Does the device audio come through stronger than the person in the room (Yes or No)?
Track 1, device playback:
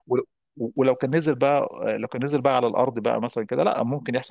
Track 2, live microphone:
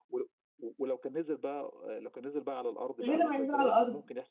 No